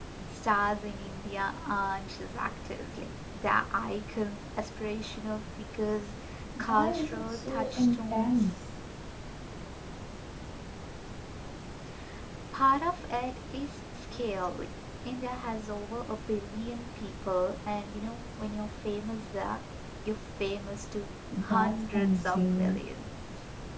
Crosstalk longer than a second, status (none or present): present